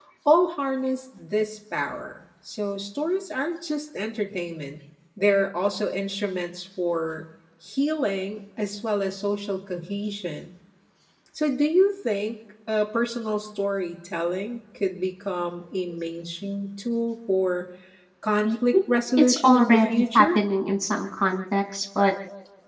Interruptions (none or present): present